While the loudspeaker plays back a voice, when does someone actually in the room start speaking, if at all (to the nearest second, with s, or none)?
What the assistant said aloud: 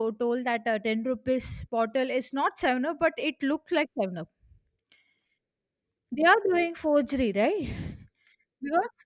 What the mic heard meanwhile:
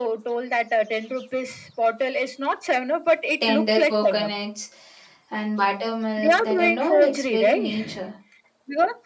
3 s